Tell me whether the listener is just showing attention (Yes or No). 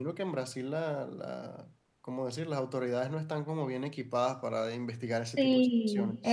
No